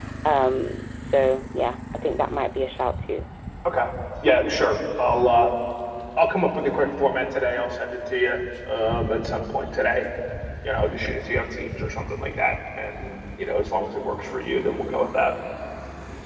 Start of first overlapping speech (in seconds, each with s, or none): none